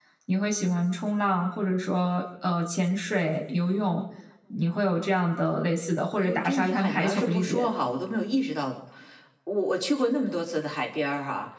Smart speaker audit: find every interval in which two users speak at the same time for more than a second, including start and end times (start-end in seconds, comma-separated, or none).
6.2-7.7